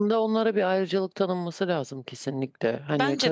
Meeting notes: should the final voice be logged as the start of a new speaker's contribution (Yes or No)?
No